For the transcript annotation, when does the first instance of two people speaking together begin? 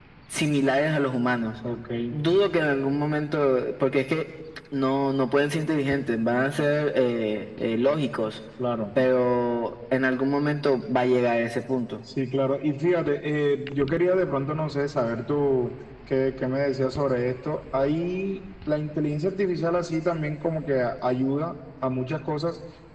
none

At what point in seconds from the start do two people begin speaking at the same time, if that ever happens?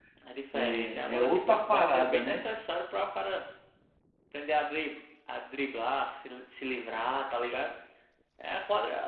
0.6 s

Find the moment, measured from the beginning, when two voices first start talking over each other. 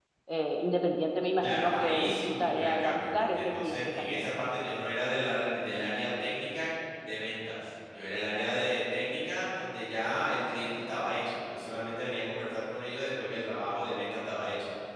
1.4 s

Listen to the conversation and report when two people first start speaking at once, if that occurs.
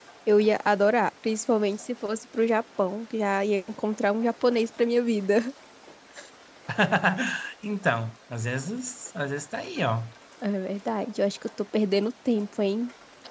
none

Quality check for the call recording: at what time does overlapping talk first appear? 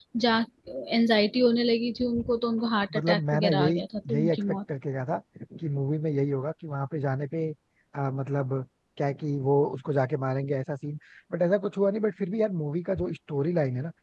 2.9 s

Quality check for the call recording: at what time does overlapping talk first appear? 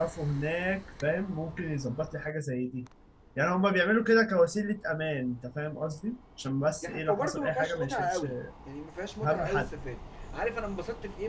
6.8 s

